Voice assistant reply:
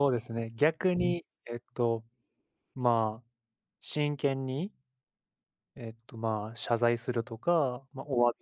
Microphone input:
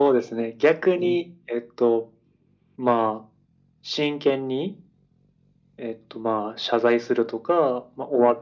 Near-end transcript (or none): none